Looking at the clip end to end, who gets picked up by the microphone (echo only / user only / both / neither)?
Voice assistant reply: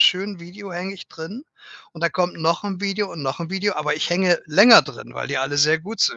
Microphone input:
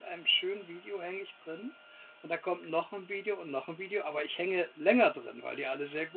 echo only